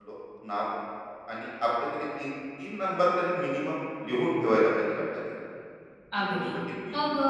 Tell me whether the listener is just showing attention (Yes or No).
No